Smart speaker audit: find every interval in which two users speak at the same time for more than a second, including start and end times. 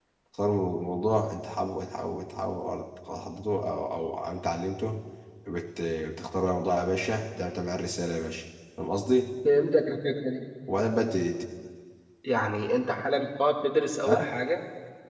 none

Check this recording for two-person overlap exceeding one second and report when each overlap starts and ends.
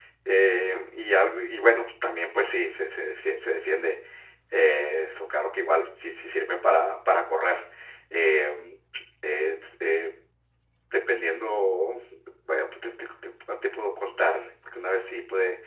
none

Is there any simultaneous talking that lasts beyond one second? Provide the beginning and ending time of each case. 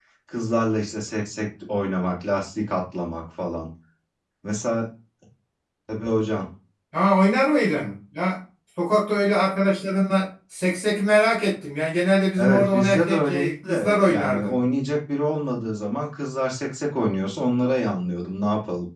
12.4-14.6

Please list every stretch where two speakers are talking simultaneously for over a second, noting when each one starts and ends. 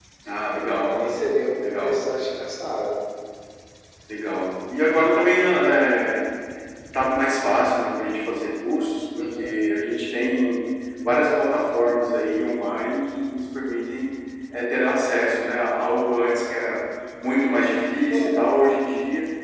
none

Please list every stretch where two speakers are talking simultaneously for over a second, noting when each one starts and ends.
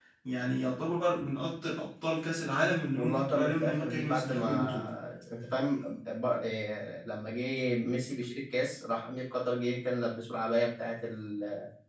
3.0-4.8

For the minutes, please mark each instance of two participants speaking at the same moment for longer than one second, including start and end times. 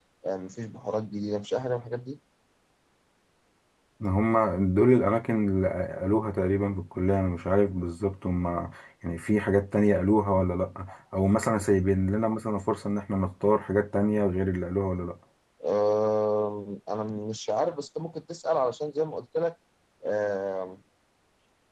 none

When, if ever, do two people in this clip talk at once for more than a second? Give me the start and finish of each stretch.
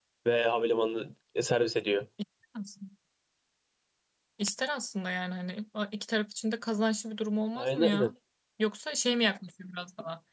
none

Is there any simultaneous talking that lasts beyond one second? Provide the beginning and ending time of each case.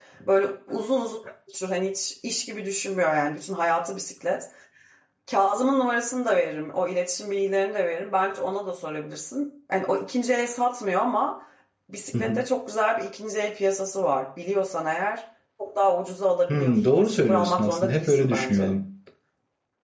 16.5-18.7

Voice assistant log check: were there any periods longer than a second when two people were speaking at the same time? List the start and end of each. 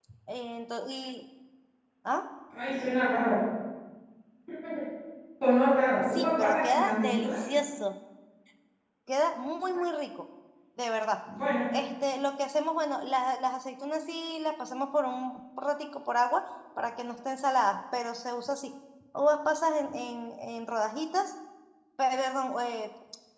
6.1-7.4

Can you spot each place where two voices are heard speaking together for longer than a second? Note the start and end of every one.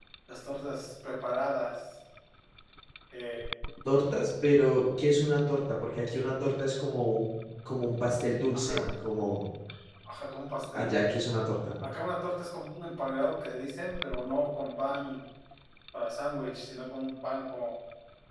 none

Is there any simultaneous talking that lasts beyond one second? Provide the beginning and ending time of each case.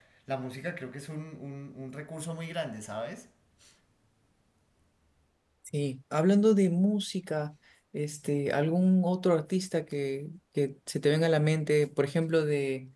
none

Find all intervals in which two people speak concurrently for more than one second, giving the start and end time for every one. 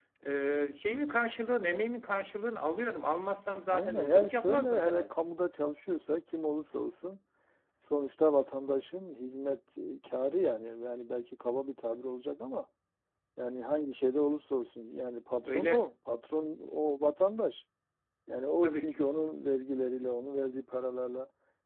3.7-5.1

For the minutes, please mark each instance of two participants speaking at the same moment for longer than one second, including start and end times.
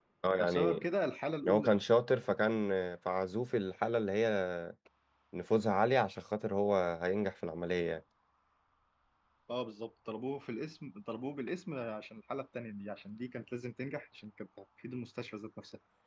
none

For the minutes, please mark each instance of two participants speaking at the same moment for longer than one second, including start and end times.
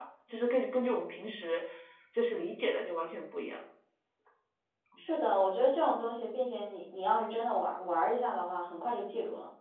none

